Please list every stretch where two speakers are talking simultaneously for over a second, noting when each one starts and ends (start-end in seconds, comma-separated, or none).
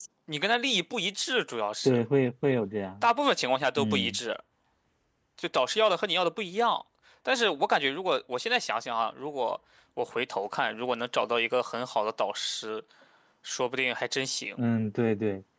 none